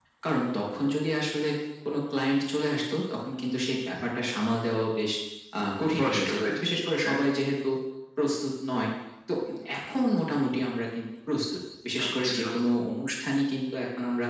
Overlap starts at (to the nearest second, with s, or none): 6 s